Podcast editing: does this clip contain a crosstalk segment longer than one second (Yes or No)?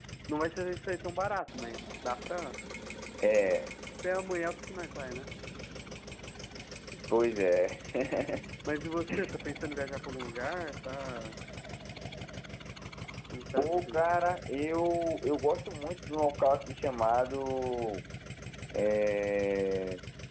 No